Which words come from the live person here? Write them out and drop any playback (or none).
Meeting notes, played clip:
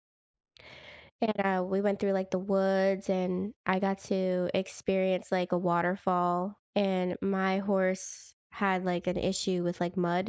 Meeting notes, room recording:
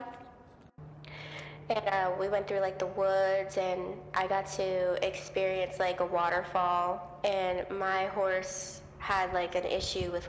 none